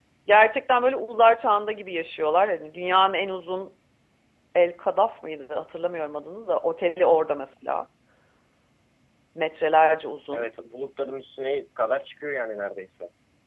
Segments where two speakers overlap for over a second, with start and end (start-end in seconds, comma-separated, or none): none